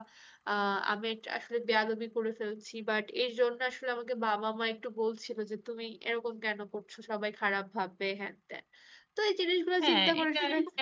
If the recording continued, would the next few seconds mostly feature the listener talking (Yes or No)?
Yes